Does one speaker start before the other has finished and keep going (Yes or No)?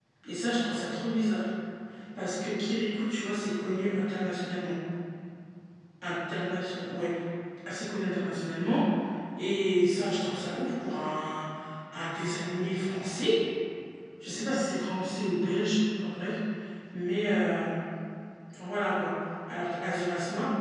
No